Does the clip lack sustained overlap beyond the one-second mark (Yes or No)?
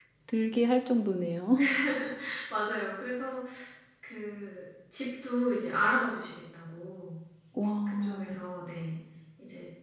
Yes